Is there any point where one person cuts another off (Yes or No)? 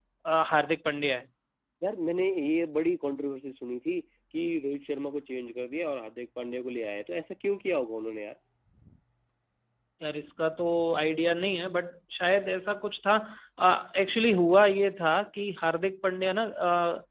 No